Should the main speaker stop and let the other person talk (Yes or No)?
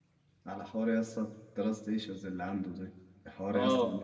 No